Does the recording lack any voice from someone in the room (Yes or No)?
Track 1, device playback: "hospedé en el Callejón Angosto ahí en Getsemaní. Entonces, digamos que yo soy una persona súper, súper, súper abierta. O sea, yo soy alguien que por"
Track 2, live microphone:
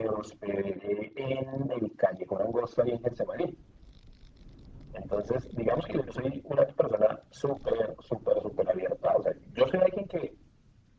Yes